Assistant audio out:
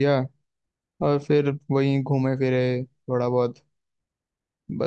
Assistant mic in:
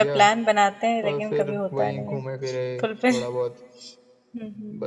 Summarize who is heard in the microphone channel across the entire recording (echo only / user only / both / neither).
both